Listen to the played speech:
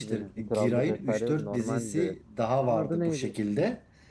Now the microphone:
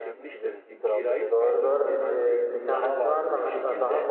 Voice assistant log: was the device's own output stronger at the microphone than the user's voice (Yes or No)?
No